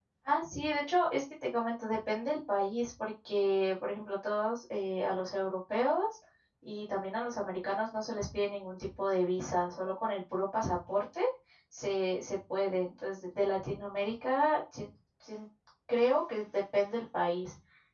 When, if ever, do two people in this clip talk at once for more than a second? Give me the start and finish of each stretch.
none

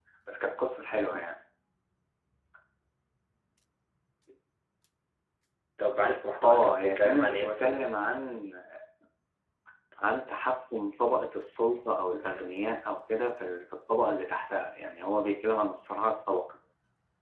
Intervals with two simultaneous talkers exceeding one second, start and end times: 6.4-7.8

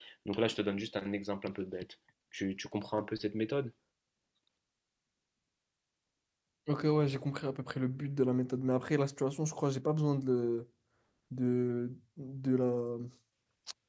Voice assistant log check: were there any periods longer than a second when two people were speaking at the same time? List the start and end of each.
none

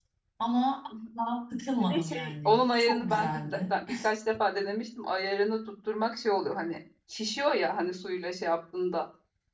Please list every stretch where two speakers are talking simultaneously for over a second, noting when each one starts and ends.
1.9-3.6

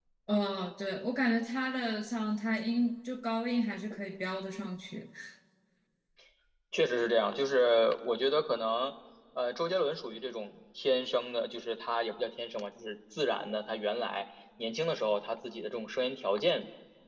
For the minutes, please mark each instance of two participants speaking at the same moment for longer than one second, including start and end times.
none

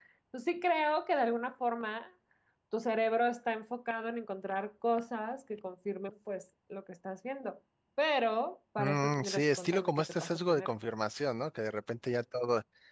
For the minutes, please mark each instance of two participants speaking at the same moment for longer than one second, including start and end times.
8.8-10.7

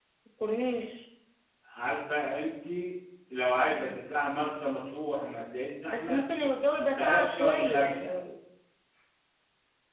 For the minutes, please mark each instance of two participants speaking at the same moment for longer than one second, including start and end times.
6.8-8.1

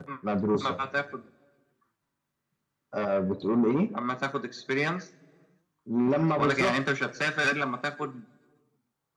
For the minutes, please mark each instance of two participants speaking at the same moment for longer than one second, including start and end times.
none

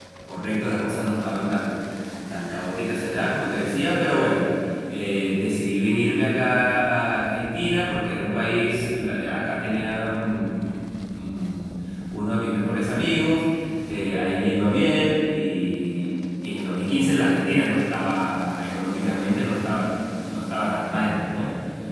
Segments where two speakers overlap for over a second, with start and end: none

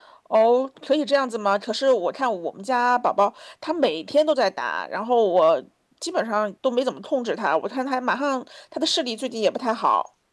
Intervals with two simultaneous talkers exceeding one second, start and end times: none

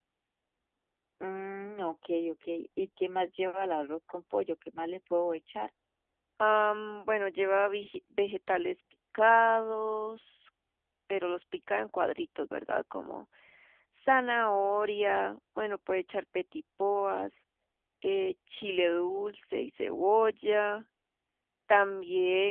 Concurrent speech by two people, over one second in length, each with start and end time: none

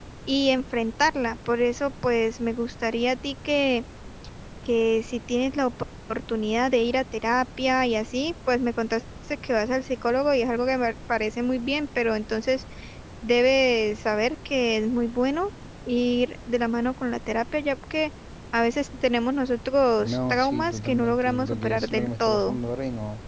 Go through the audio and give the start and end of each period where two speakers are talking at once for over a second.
20.0-22.6

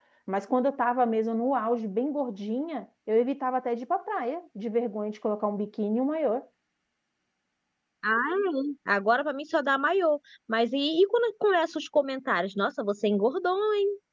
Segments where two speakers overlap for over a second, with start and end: none

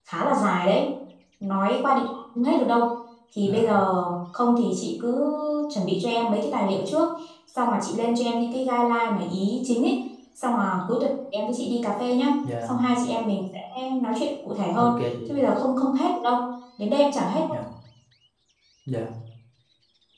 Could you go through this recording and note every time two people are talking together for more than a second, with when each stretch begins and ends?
none

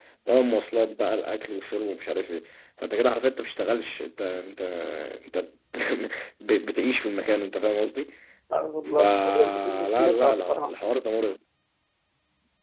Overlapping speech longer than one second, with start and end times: 9.0-10.7

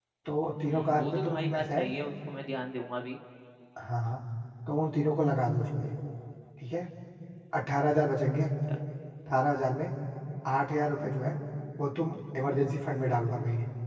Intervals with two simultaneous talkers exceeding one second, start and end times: 0.7-1.9

